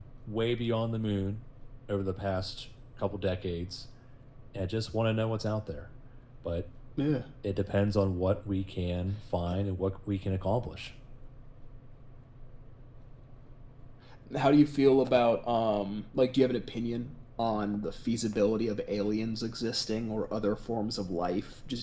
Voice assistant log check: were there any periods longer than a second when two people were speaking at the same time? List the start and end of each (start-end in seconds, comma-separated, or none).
none